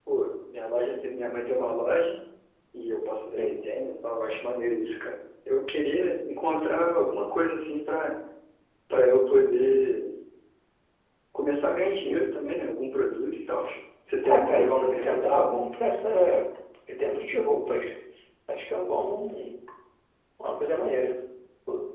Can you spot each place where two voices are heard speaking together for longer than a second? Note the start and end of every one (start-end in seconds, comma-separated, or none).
14.2-15.5